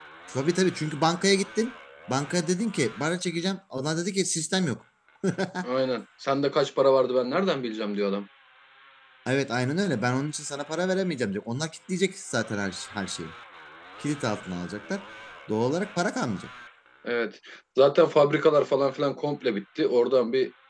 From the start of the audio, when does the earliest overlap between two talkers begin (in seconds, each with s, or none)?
none